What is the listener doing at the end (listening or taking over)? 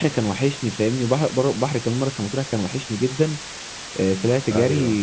listening